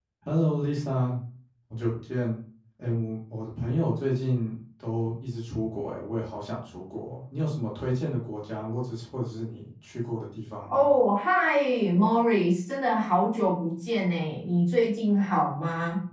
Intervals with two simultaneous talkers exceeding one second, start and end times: none

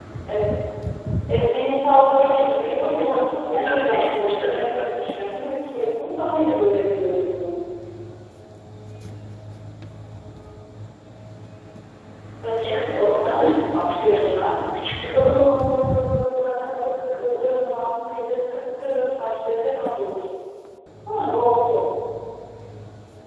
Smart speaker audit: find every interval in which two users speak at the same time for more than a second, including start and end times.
2.1-4.9, 12.6-14.6

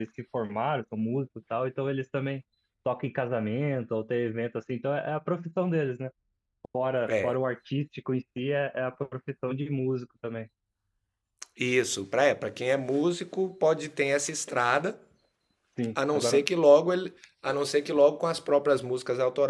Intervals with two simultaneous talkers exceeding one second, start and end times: none

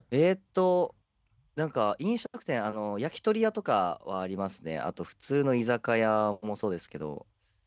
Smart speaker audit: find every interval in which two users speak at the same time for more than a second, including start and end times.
none

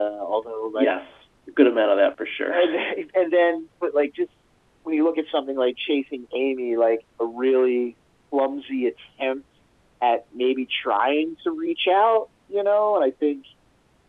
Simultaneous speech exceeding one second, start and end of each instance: none

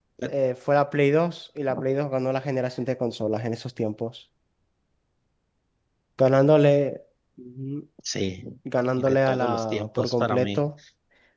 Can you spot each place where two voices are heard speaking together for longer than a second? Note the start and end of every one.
8.9-10.6

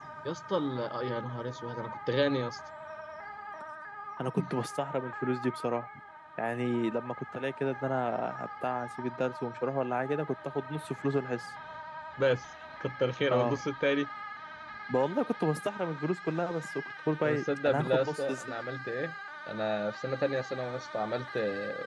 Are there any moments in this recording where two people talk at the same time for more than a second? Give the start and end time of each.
17.2-18.6

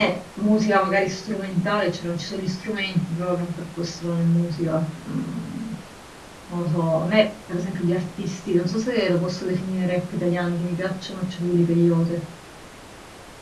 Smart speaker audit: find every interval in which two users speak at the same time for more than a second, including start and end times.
none

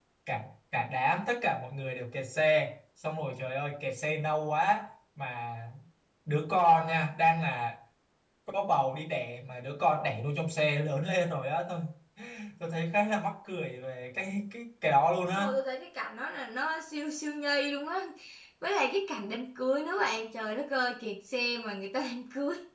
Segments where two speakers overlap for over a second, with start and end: none

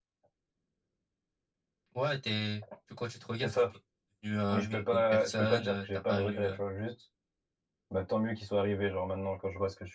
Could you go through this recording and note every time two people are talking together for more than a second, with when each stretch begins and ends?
4.5-6.6

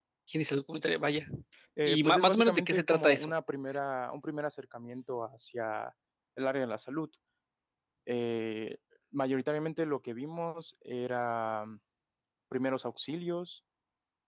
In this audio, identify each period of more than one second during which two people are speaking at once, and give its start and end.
1.9-3.3

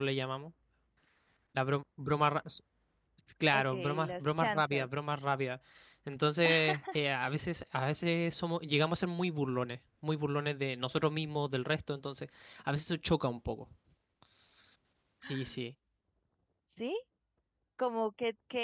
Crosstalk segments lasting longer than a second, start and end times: 3.5-4.9

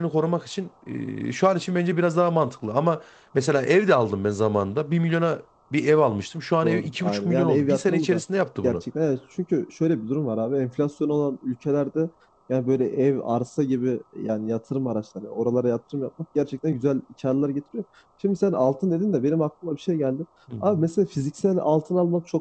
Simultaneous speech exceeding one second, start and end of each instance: 6.6-8.2

